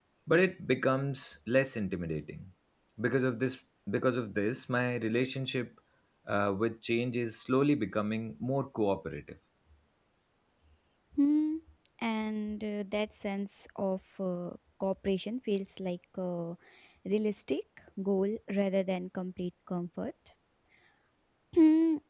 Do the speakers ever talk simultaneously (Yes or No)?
No